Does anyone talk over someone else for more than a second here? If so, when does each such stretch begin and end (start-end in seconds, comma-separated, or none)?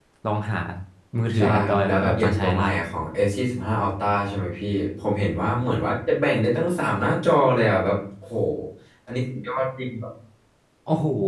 1.4-2.6